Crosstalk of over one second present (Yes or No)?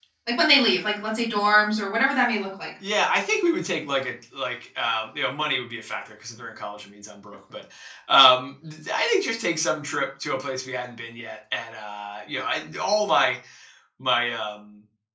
No